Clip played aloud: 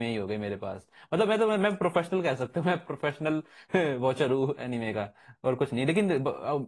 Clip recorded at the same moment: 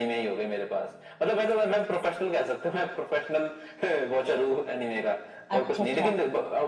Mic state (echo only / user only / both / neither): both